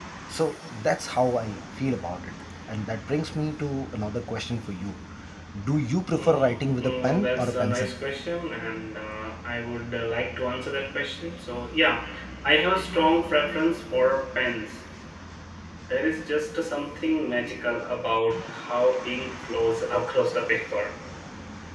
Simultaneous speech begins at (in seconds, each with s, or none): 6.2 s